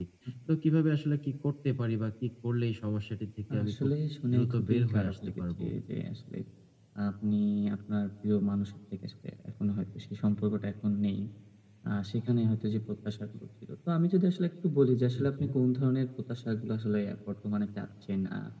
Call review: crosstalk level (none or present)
present